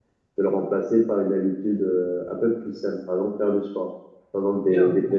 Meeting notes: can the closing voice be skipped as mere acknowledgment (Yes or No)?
No